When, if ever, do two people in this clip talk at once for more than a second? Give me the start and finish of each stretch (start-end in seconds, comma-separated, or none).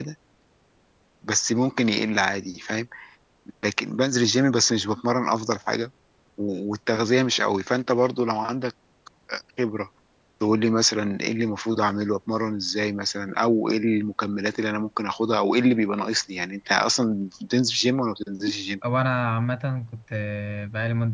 none